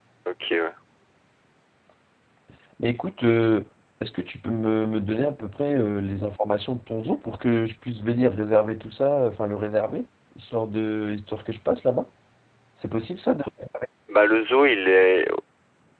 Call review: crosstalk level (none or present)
none